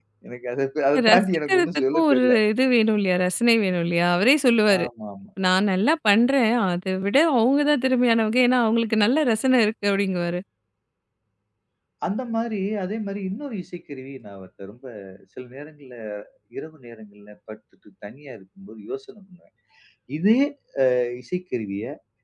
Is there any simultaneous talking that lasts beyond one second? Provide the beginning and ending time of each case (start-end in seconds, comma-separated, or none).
1.1-2.3